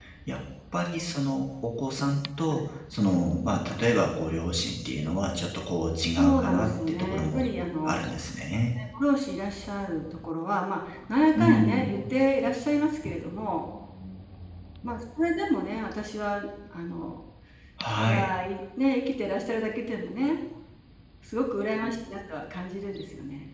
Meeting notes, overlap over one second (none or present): present